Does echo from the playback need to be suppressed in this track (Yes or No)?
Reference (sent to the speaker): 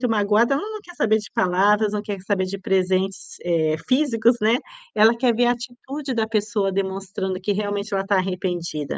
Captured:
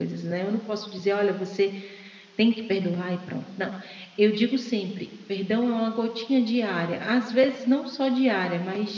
No